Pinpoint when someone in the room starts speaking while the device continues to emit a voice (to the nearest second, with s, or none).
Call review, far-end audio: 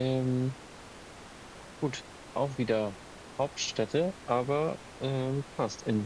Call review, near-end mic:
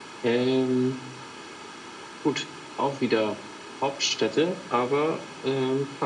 none